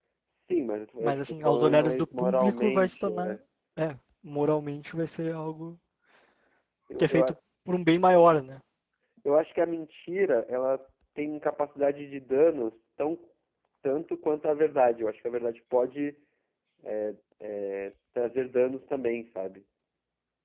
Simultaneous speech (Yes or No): Yes